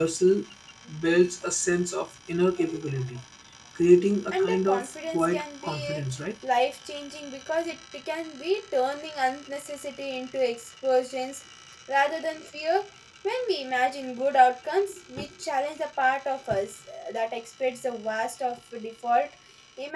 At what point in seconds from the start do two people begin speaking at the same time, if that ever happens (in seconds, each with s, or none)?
4.3 s